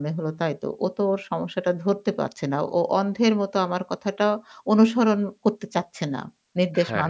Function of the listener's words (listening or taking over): taking over